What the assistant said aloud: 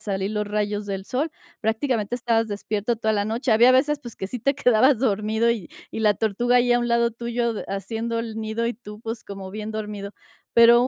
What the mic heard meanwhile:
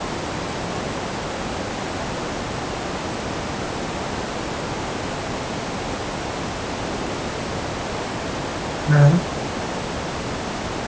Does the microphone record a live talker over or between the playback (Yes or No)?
Yes